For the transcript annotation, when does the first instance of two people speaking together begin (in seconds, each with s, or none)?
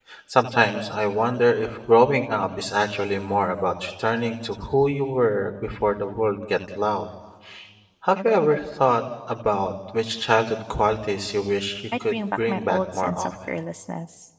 11.9 s